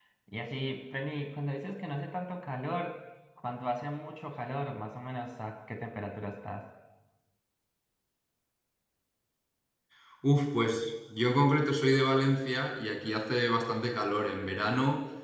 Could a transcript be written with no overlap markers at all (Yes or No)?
Yes